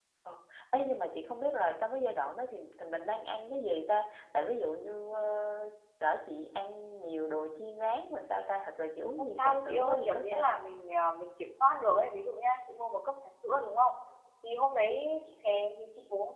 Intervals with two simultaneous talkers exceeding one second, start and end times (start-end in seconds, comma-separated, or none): 9.2-10.6